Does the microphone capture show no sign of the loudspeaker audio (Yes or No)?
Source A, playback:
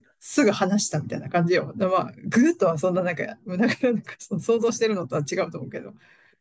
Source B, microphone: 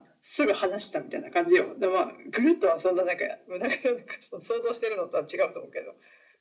No